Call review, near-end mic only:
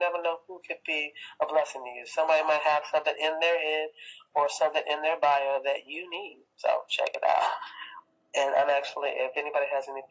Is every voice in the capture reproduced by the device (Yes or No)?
Yes